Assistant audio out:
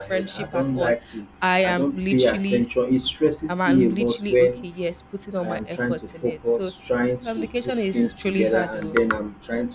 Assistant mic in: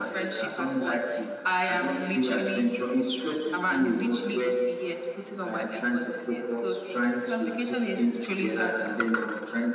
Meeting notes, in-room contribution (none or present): none